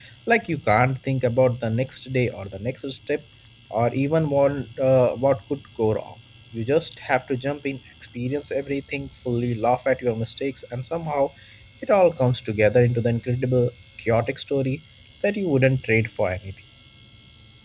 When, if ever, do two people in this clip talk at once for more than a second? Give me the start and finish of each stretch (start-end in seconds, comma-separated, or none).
none